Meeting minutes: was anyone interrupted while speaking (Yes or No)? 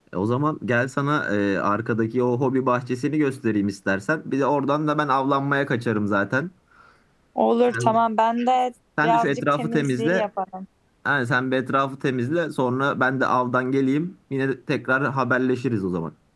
Yes